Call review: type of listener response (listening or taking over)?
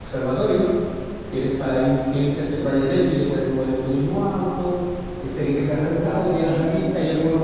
listening